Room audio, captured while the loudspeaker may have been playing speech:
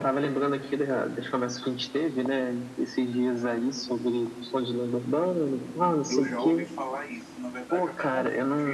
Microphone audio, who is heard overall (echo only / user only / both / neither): both